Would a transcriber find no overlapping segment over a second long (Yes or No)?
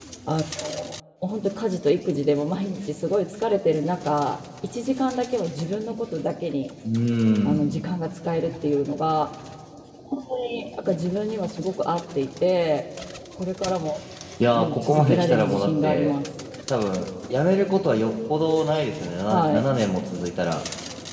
No